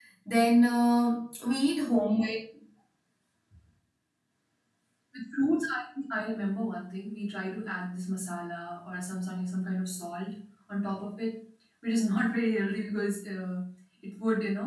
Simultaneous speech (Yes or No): No